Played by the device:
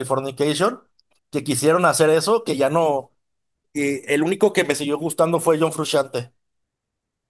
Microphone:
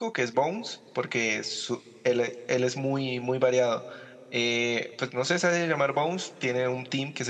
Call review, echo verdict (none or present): none